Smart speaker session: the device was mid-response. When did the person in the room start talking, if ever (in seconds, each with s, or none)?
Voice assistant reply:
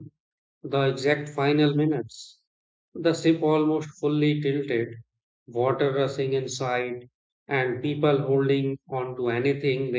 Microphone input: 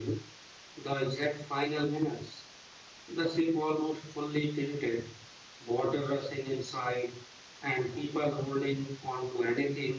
none